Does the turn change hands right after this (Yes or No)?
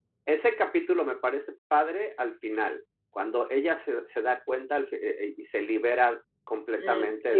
Yes